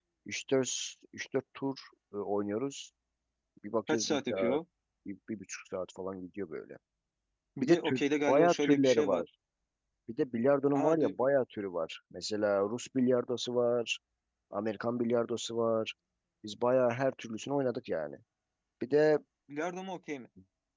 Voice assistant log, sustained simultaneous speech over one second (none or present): present